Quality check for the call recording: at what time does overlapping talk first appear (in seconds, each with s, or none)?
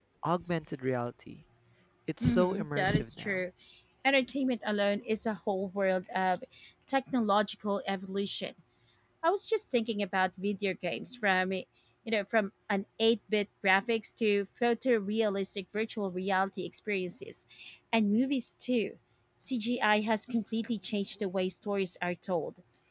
2.2 s